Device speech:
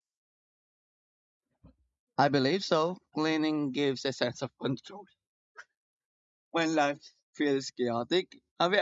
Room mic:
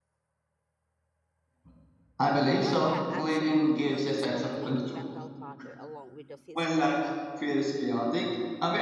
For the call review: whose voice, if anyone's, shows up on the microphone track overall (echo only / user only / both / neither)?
both